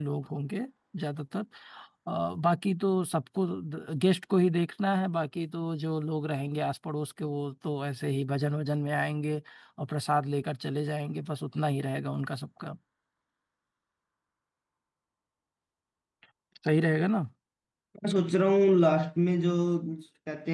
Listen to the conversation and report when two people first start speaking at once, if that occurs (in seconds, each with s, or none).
none